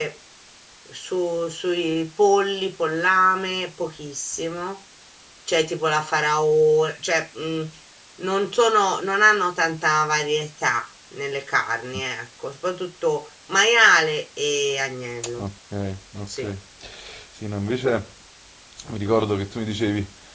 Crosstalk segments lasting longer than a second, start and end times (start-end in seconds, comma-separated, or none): none